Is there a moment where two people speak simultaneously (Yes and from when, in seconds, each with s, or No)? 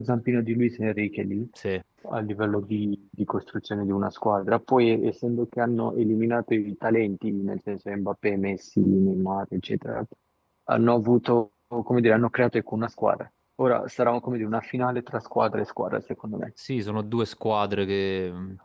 No